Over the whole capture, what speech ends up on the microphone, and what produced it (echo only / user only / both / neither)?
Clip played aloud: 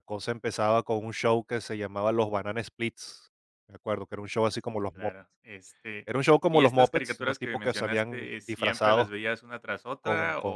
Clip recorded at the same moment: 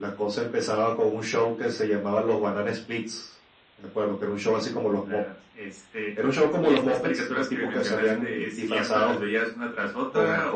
echo only